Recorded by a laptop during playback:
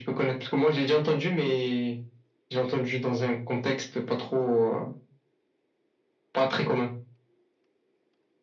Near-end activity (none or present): none